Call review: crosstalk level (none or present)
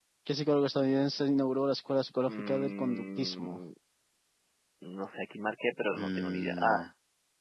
present